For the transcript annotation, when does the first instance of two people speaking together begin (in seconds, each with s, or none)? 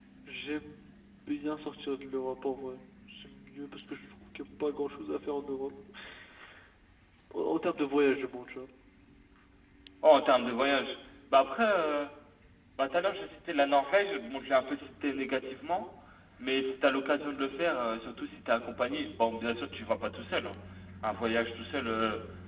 none